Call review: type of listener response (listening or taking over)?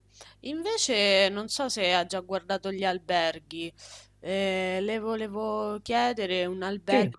listening